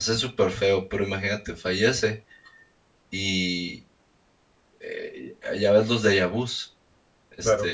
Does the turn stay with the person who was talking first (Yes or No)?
Yes